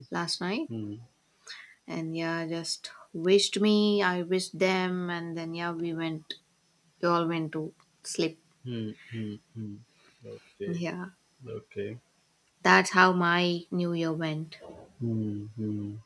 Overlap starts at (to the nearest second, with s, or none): none